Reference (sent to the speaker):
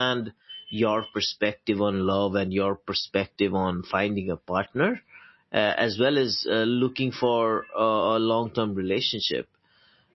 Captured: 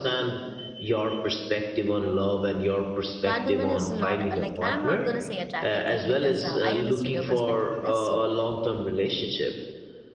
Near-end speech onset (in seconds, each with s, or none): 3.2 s